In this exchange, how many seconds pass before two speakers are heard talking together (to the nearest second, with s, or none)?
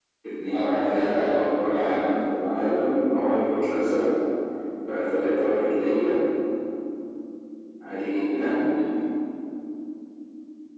1 s